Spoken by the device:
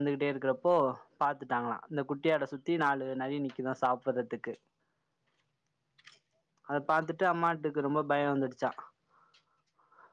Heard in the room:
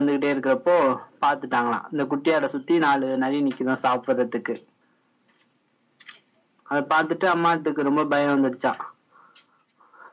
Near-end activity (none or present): none